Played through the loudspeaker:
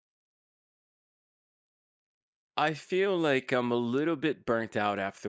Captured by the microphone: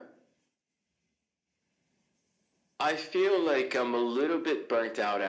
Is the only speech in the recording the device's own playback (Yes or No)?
Yes